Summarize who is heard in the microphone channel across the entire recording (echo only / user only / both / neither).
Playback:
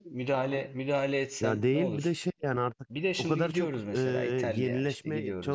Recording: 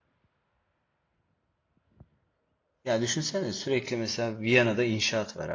user only